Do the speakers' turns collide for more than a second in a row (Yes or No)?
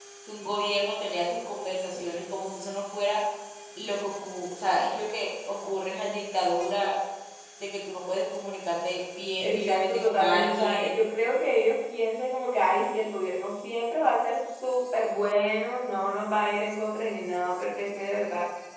Yes